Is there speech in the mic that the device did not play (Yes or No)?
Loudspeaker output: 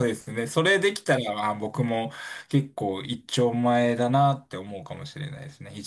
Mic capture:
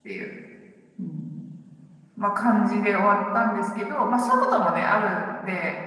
Yes